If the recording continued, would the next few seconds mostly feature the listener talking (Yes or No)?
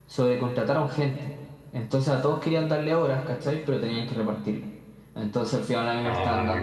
No